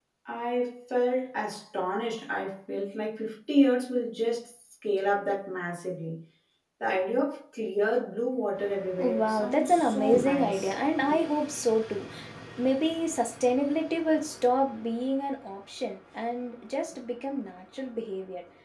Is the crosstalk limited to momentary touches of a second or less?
No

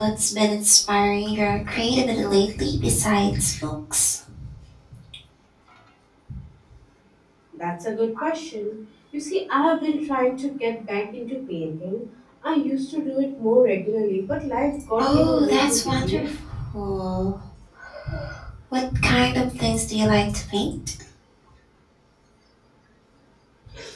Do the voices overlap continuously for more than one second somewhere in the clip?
Yes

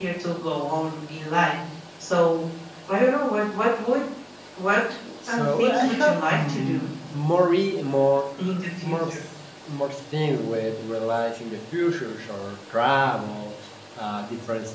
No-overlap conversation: No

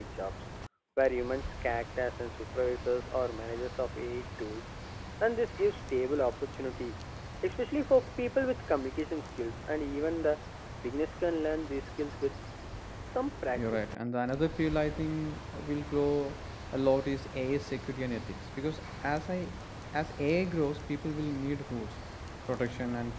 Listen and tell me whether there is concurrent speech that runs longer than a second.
No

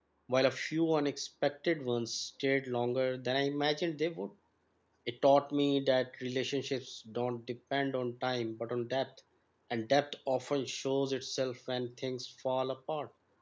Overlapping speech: No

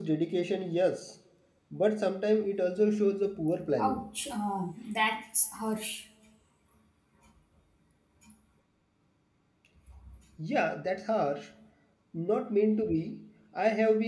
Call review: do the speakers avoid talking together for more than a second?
Yes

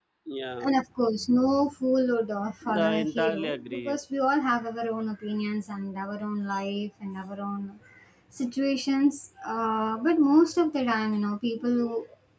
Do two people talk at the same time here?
Yes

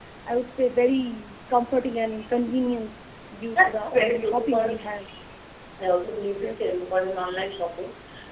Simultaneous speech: Yes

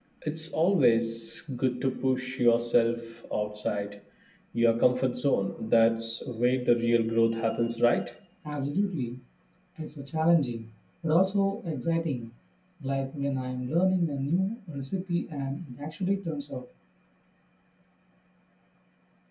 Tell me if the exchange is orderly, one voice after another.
Yes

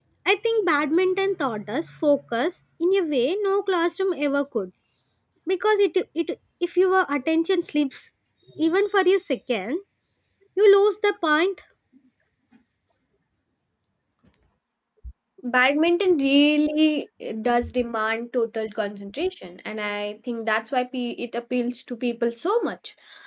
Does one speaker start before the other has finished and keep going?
No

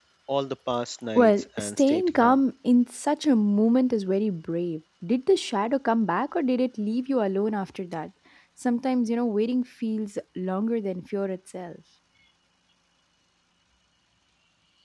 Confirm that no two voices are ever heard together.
No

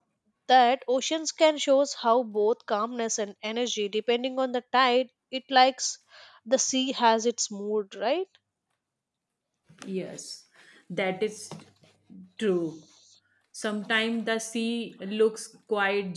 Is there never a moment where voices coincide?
Yes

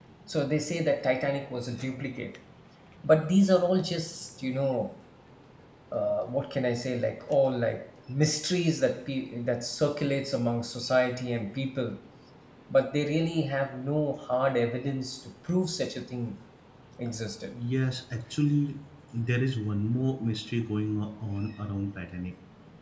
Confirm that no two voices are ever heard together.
Yes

